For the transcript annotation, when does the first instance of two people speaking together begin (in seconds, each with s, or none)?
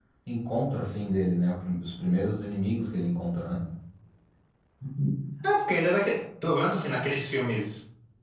none